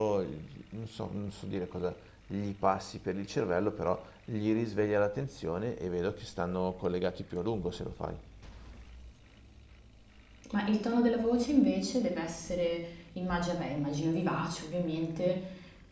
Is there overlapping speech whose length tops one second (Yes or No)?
No